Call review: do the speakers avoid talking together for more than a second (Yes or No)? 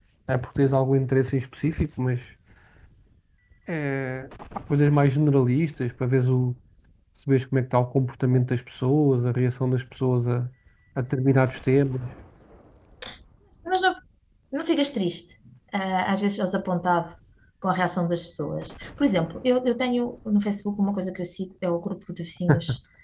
Yes